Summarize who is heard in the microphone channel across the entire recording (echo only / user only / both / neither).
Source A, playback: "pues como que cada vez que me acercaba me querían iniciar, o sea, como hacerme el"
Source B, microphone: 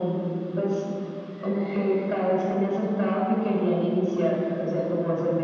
echo only